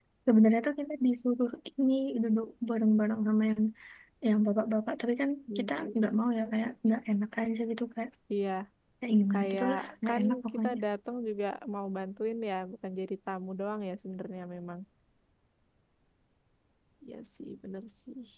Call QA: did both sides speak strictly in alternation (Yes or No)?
No